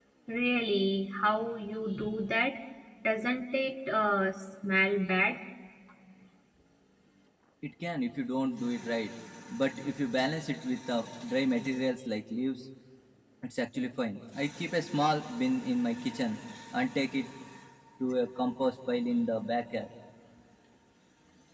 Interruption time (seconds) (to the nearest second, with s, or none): none